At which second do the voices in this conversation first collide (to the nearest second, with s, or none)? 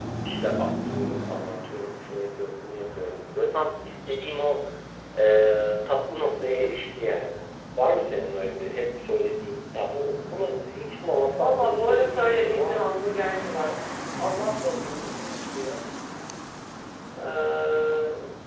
11 s